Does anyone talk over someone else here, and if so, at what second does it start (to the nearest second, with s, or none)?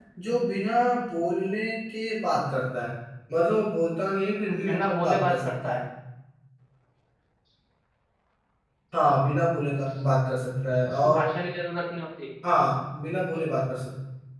4 s